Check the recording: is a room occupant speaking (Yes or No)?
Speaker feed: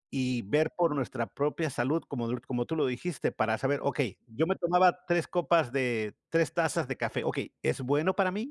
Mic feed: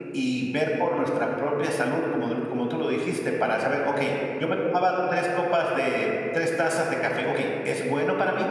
No